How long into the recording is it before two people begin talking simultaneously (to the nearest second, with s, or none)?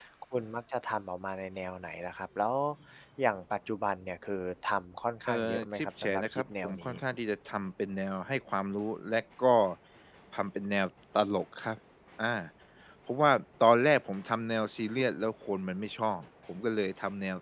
5 s